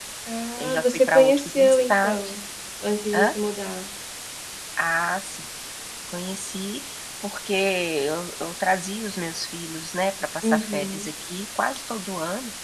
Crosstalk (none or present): present